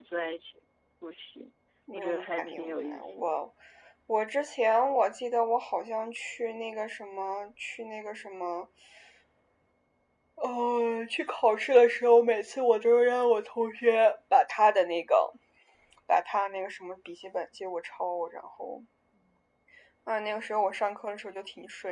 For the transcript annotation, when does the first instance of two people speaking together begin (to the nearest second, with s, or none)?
2 s